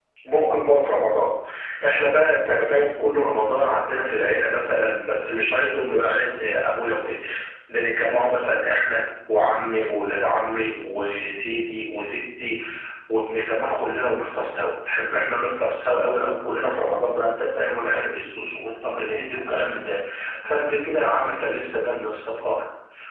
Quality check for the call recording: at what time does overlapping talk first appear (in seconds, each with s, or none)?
none